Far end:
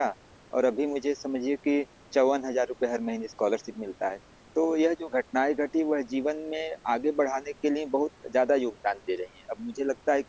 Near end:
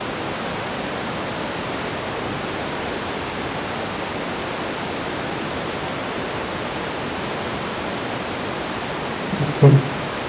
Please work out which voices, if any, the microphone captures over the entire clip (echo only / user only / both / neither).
user only